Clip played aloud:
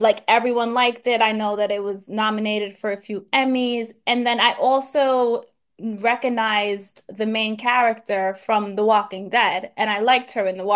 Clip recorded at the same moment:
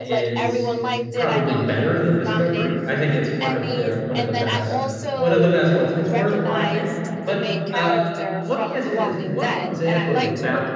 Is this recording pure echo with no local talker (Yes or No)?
No